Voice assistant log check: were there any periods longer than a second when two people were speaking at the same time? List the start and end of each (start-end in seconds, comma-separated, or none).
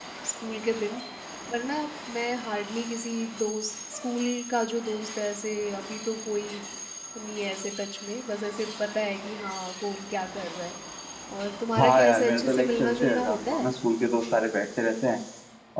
11.8-13.7